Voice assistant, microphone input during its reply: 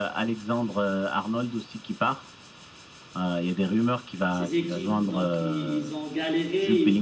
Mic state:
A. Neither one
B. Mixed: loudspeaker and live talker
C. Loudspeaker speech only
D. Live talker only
B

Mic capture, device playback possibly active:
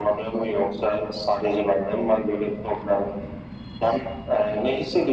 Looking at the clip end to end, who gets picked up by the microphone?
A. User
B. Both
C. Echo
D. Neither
C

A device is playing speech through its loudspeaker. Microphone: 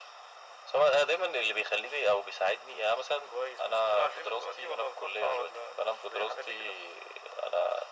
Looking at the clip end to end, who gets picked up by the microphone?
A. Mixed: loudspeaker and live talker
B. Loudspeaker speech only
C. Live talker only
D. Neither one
B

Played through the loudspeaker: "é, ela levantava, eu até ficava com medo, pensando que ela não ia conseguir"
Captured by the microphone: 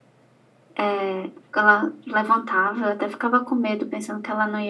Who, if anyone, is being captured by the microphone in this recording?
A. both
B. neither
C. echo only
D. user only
C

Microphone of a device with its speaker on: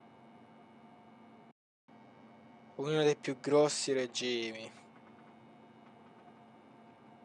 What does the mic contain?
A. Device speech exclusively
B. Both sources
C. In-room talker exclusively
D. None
C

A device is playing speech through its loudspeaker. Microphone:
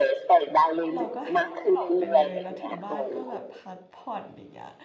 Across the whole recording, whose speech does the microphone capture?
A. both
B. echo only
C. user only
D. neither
A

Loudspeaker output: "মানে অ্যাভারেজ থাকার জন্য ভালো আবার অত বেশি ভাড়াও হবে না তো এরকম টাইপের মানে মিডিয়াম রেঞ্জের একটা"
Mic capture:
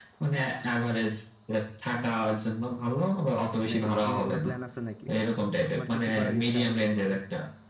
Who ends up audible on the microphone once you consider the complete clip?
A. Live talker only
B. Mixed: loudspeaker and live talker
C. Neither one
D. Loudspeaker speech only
B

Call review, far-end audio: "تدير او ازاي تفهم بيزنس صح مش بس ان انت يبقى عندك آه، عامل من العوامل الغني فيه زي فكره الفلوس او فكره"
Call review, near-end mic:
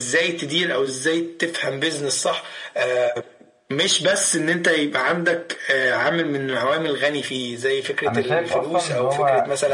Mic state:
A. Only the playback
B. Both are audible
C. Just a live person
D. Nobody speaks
B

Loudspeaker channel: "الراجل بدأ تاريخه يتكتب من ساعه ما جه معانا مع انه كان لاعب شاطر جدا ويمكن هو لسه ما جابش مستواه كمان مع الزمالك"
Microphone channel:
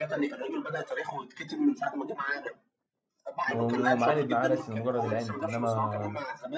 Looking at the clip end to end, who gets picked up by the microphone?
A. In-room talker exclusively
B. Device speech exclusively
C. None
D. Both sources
D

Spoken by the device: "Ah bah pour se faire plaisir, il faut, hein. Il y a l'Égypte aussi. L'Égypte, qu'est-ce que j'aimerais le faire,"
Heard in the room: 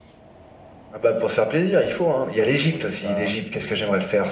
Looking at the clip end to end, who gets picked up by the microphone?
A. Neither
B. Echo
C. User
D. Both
D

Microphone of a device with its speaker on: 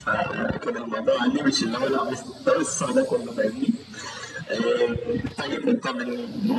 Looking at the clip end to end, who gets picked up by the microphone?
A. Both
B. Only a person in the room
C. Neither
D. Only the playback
D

